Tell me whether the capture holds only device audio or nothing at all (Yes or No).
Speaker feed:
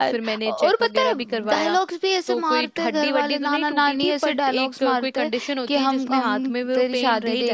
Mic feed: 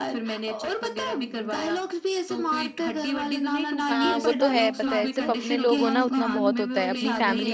No